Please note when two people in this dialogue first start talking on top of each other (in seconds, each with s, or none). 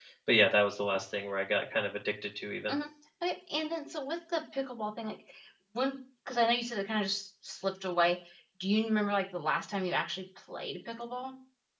none